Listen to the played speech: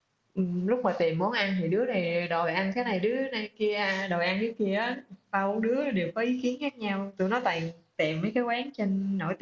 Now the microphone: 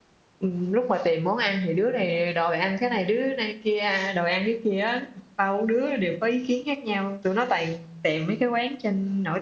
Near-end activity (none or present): none